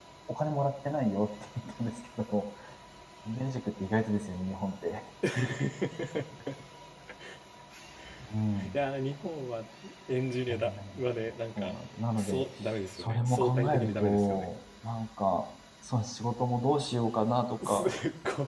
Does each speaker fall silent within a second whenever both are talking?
No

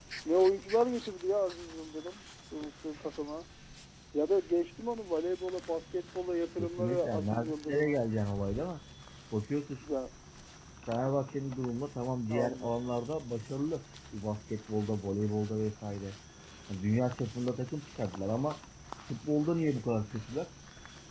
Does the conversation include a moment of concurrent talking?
Yes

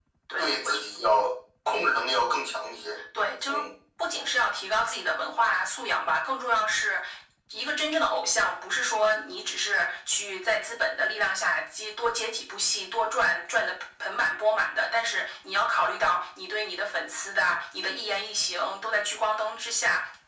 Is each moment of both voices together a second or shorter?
Yes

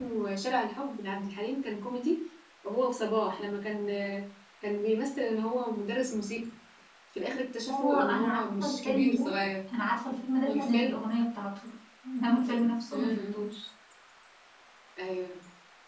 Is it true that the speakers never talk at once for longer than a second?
No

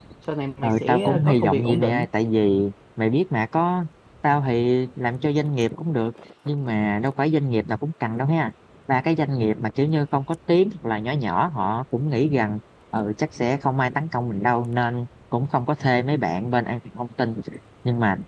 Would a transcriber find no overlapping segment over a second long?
No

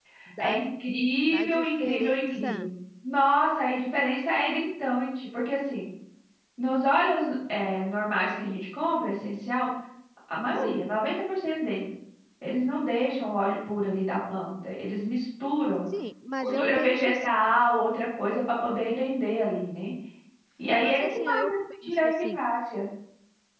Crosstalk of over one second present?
Yes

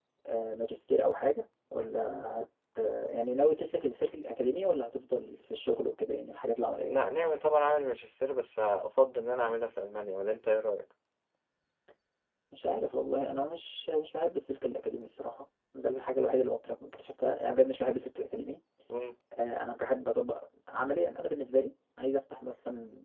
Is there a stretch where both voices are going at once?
No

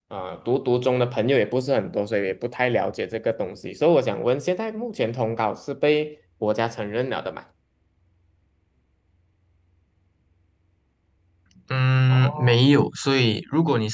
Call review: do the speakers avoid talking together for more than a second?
Yes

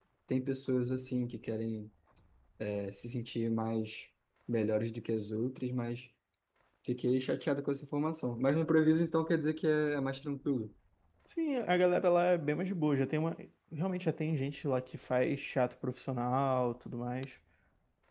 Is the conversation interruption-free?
Yes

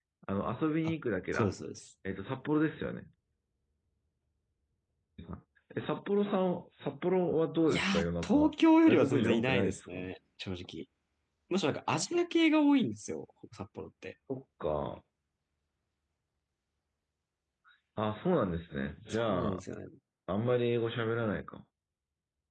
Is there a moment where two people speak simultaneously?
Yes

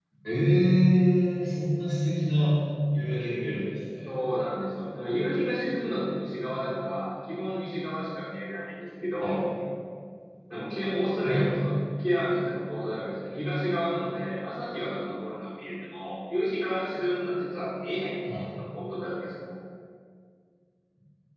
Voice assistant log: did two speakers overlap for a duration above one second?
No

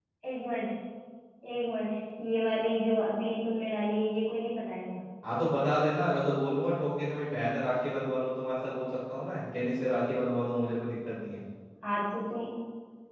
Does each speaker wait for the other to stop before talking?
Yes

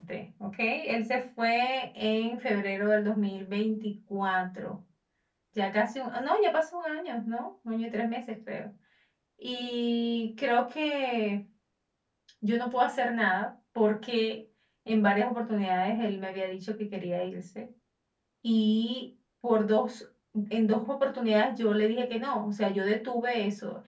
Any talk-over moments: No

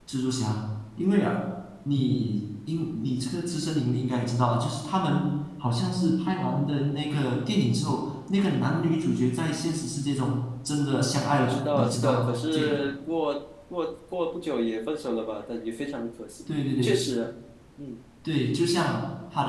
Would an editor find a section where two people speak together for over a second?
Yes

